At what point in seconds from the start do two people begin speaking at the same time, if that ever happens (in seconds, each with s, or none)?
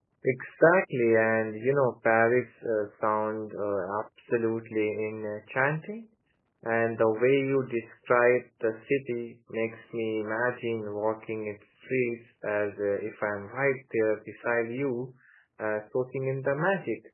none